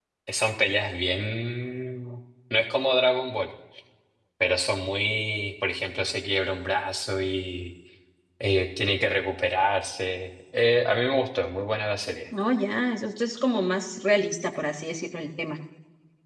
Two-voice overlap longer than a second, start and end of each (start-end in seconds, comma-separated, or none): none